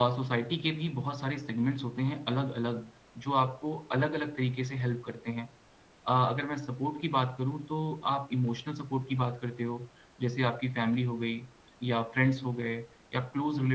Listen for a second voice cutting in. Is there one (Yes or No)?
No